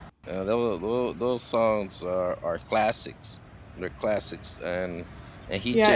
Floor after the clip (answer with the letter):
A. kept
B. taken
B